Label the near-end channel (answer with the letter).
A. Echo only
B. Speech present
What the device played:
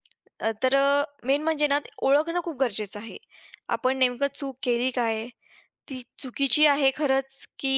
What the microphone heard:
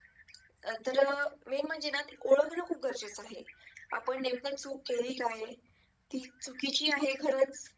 A